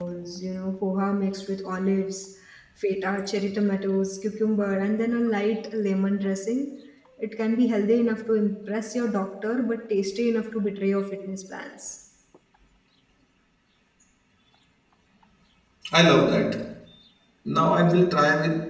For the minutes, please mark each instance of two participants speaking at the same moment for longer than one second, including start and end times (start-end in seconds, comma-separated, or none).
none